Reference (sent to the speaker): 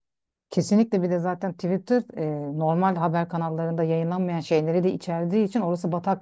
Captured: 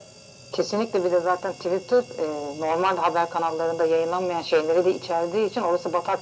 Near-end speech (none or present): none